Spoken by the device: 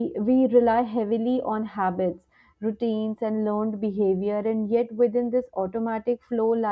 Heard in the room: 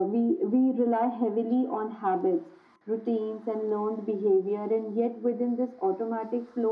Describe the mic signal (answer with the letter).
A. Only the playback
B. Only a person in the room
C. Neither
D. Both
A